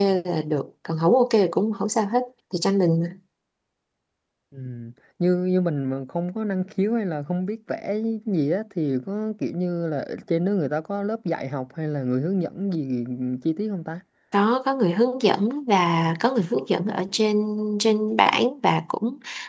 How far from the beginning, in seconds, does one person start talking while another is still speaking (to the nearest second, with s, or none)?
none